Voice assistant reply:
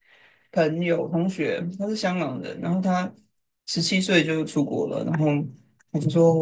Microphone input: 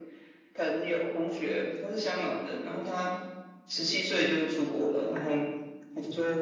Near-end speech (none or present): none